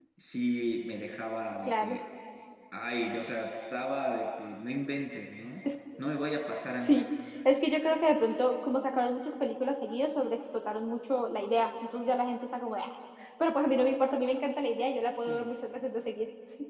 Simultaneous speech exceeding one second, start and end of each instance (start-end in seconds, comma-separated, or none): none